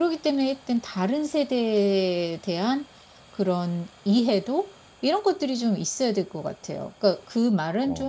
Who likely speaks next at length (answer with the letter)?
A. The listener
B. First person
B